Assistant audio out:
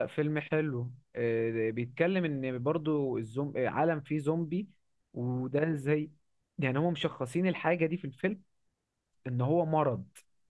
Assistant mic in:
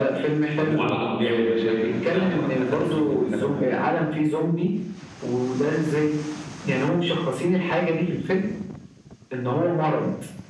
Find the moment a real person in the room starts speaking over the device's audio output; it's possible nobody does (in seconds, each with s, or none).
0.6 s